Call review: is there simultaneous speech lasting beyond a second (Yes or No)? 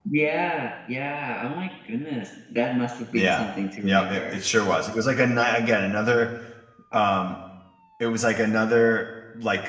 No